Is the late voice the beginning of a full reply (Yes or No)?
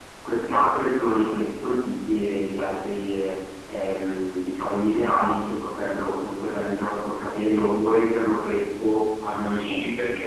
Yes